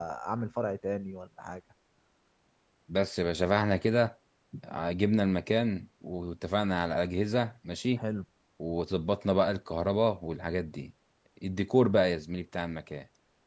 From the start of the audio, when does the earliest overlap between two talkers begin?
none

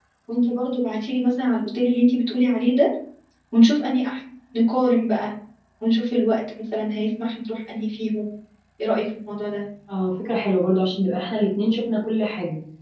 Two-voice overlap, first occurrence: none

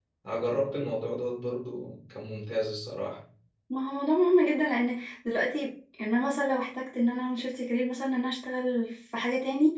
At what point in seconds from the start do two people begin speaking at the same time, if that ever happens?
none

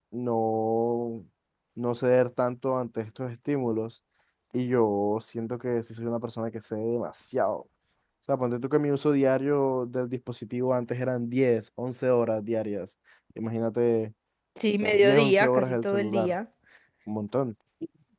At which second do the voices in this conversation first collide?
14.8 s

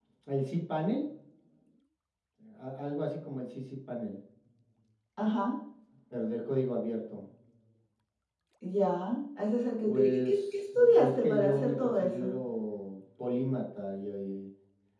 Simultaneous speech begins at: 9.9 s

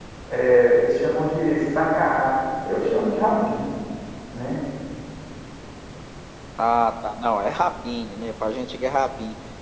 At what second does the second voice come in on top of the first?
none

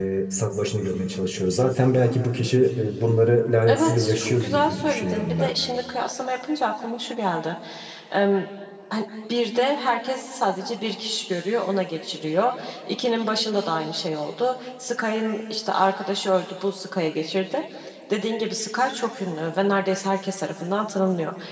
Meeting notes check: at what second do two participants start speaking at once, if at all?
3.7 s

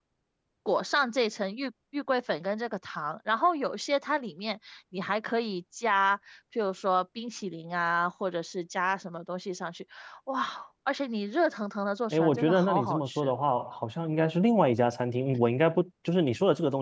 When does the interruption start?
12.1 s

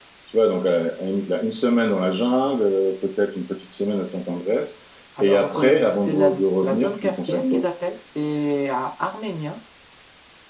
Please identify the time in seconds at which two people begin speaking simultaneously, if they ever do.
5.2 s

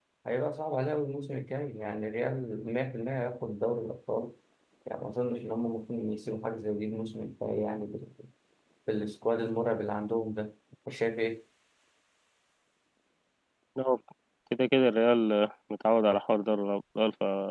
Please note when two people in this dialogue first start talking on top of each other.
none

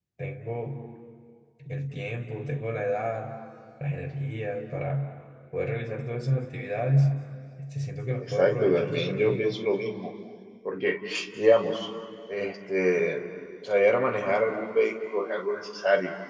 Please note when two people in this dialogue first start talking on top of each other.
8.2 s

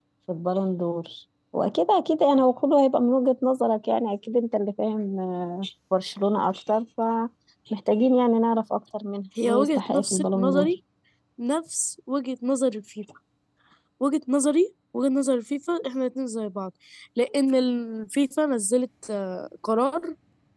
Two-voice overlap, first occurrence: 9.4 s

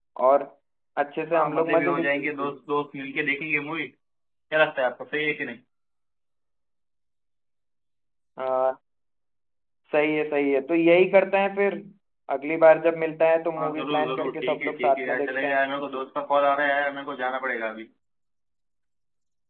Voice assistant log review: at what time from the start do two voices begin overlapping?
1.3 s

